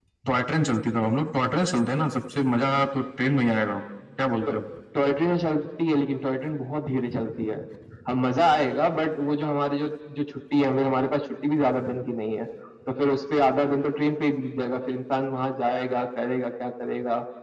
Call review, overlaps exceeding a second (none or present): none